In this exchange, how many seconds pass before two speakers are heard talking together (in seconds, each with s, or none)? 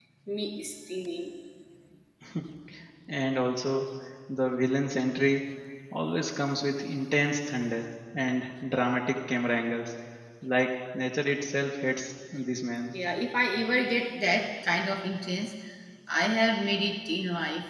none